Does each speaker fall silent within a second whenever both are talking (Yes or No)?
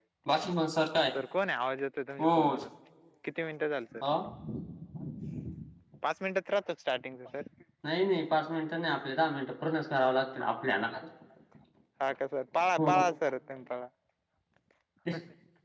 Yes